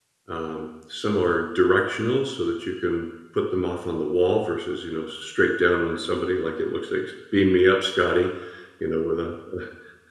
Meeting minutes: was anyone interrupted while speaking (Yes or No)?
No